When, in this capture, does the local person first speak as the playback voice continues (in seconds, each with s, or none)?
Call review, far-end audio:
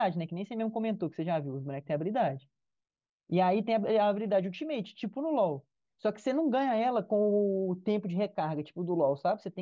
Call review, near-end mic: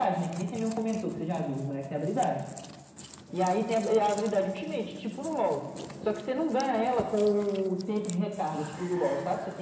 none